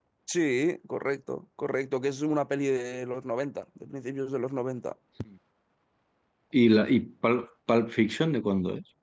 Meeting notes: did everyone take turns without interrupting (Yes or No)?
Yes